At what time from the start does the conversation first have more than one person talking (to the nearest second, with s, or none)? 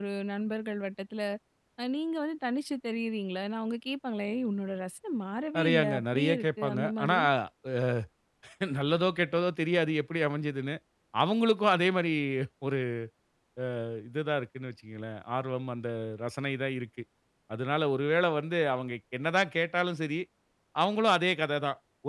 6 s